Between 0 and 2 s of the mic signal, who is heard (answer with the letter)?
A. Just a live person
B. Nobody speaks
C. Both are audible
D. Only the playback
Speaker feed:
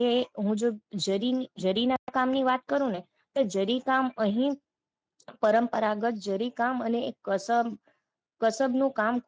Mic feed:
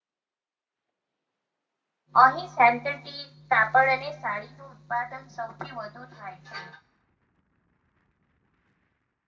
B